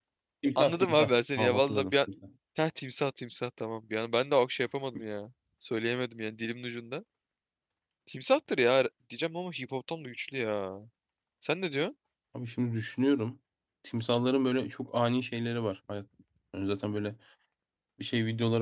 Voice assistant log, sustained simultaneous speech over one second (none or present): present